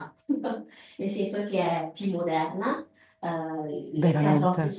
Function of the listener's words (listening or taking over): listening